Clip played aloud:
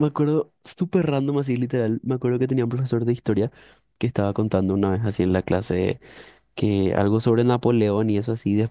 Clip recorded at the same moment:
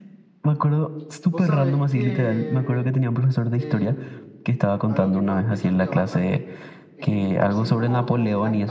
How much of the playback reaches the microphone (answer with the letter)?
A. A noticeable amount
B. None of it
A